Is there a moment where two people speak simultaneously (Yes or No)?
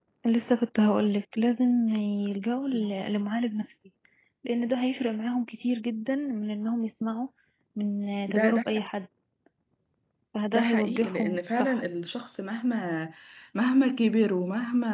Yes